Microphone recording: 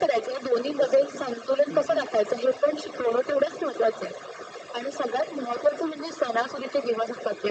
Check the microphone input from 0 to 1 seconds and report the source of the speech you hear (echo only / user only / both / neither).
both